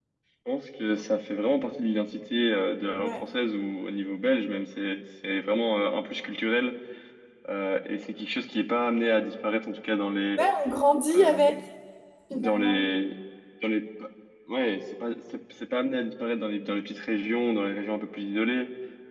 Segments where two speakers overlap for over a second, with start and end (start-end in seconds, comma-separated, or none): none